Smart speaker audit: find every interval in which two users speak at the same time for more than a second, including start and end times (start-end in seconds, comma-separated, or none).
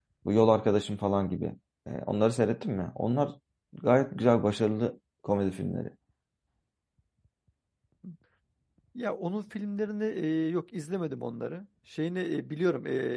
none